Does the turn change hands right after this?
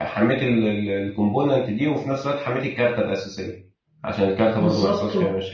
Yes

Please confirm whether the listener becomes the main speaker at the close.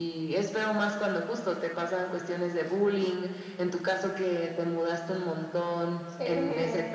No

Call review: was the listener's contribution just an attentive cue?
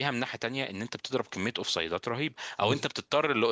Yes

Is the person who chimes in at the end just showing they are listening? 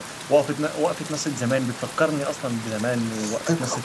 No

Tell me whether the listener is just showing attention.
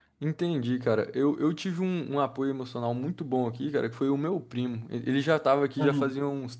Yes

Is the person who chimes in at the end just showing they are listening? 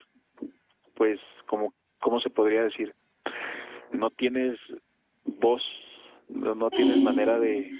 Yes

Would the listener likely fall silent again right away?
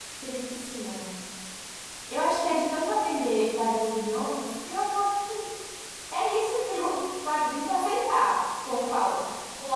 Yes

